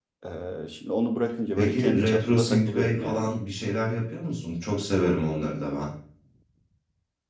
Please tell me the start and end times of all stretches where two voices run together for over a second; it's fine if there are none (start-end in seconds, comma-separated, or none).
1.6-3.3